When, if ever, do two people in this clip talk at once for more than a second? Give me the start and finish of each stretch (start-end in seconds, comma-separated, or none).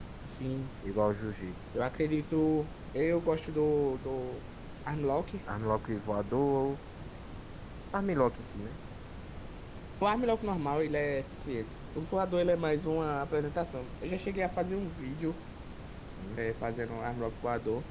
none